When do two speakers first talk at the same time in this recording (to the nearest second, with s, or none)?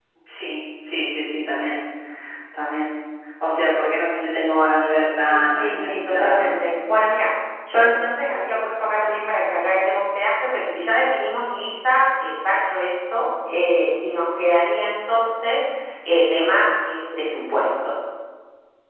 5 s